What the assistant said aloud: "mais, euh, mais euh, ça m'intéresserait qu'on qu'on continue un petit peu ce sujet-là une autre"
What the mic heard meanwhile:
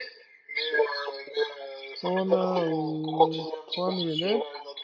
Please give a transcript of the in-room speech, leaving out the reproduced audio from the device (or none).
On a euh, 3000 élèves.